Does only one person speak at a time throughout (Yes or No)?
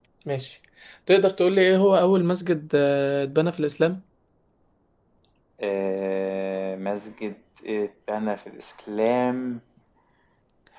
Yes